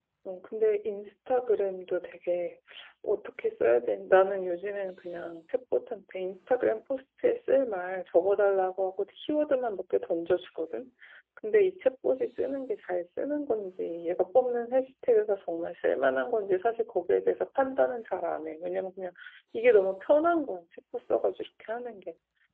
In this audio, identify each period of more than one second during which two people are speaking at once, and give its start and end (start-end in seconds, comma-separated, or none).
none